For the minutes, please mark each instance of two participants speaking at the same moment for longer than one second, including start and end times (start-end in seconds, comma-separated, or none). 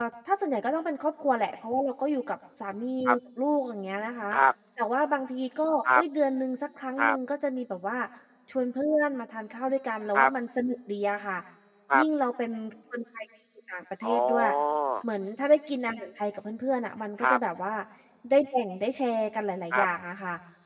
none